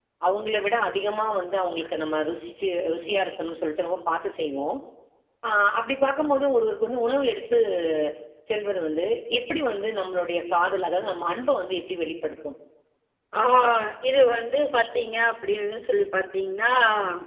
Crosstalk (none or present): none